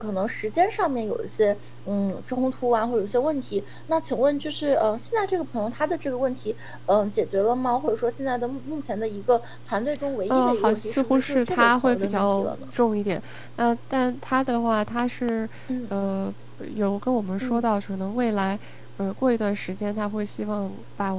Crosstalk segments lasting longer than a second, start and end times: 10.3-12.6

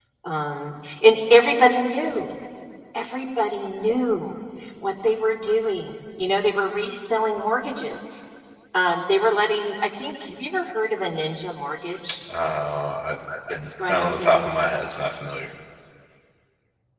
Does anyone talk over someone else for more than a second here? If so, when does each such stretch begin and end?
13.6-14.9

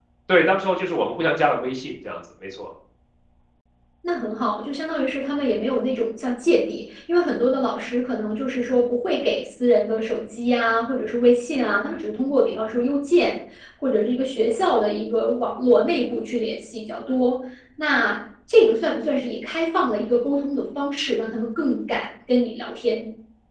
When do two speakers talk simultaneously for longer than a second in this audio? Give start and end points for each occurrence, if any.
none

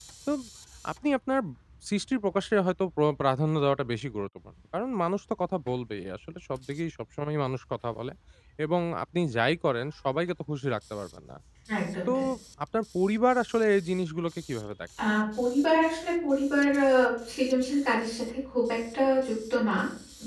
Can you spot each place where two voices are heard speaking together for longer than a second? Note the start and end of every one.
none

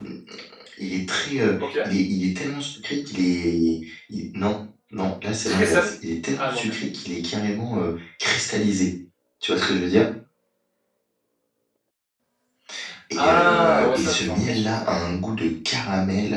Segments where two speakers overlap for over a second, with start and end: 13.2-14.8

